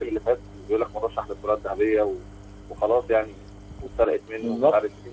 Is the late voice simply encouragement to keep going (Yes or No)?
Yes